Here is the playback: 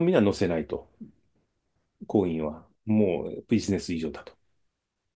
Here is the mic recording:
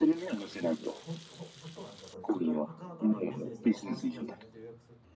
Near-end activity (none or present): present